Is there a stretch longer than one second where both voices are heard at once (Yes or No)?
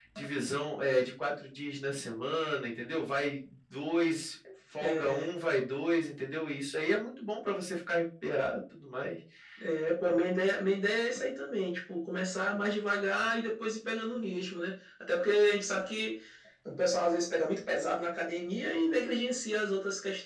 No